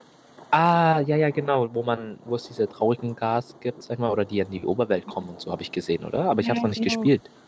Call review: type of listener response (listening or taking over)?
taking over